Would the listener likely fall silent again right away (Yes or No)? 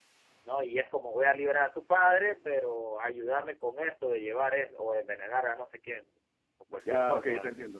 No